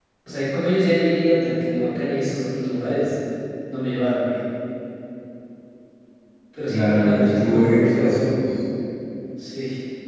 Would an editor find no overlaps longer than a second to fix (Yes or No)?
No